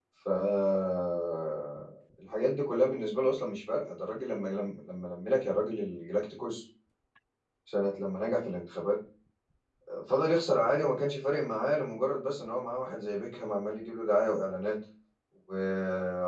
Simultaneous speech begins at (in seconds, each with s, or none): none